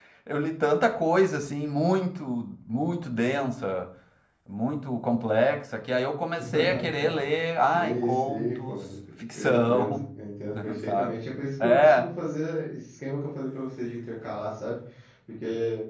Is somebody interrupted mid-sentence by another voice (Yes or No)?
Yes